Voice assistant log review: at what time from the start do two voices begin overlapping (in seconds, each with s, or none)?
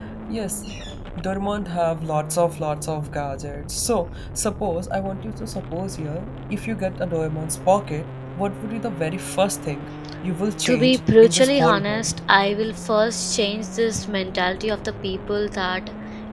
10.7 s